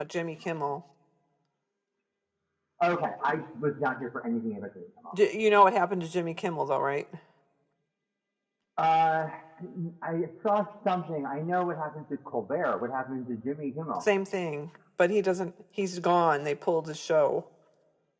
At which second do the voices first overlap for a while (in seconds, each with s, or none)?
none